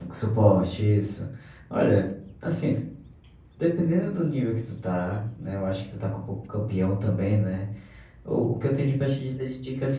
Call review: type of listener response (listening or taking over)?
listening